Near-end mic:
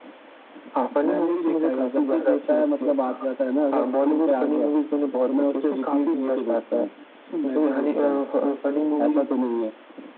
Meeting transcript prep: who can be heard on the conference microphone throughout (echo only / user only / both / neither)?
echo only